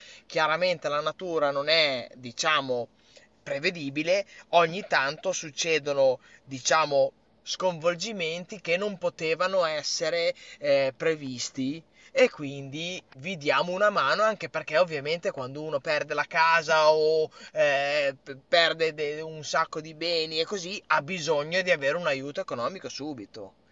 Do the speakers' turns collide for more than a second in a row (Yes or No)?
No